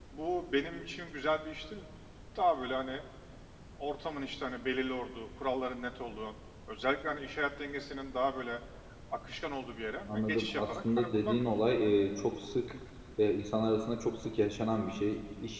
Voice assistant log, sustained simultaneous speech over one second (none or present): present